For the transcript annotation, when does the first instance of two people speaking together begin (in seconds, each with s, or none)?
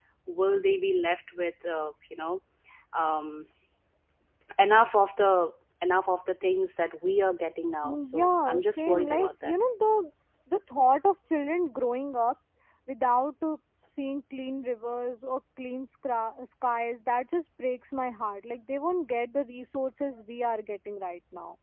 7.8 s